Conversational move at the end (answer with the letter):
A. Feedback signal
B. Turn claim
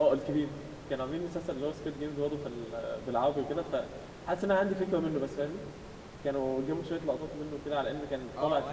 B